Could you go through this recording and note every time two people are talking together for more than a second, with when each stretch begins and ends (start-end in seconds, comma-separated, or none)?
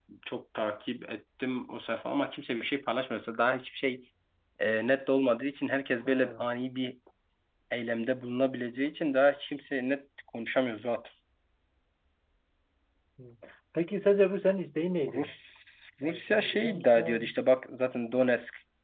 16.0-17.3